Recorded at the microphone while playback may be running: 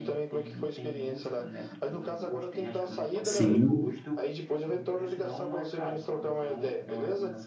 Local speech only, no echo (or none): sim,